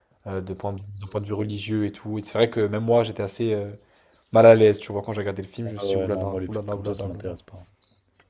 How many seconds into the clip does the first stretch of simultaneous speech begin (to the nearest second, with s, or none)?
6 s